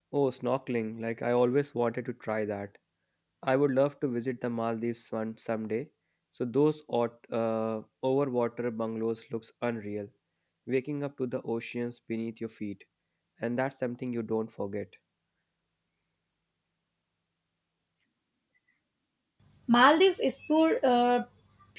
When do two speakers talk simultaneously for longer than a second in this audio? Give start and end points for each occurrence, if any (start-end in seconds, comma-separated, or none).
none